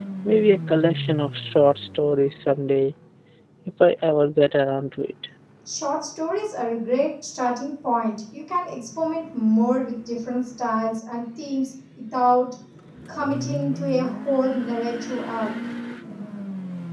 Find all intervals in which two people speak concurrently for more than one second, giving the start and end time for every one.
none

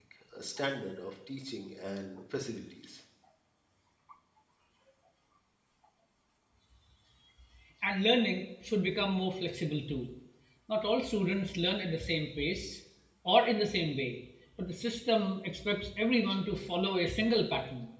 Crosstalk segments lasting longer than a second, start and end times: none

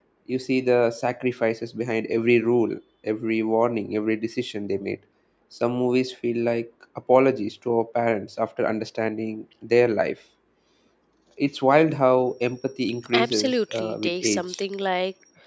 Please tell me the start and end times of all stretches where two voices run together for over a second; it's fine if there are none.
13.1-14.6

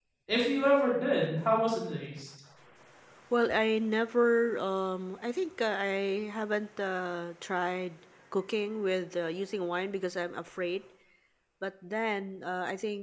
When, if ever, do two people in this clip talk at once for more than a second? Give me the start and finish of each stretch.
none

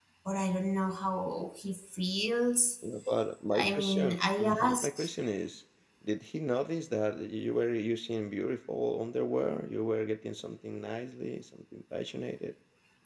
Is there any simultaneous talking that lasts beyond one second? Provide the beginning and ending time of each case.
3.5-5.1

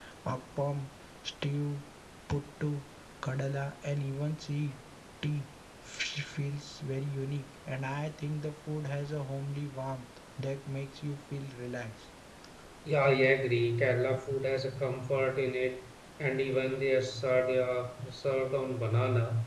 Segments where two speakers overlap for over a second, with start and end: none

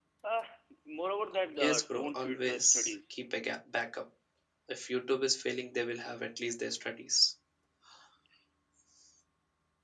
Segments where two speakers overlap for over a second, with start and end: 1.6-2.9

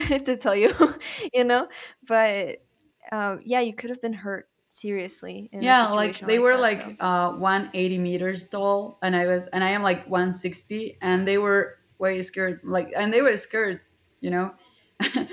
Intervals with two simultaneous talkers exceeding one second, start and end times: 5.6-6.9

